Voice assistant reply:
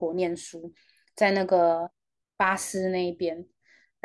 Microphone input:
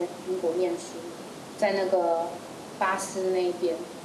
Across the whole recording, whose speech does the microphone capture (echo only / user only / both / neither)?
echo only